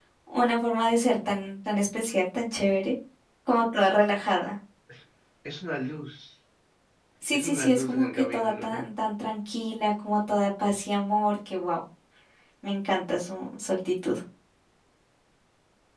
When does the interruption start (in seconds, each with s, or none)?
7.3 s